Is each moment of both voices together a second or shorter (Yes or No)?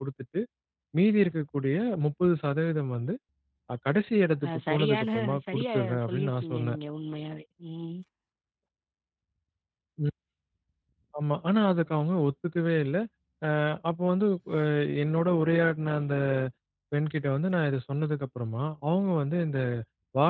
No